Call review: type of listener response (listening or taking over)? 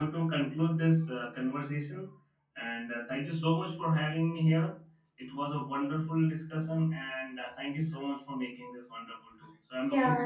taking over